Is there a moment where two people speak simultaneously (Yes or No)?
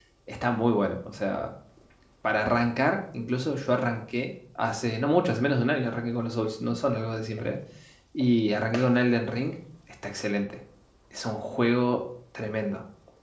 No